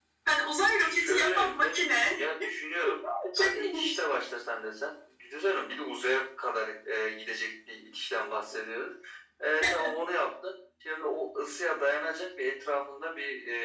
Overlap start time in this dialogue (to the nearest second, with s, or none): 1 s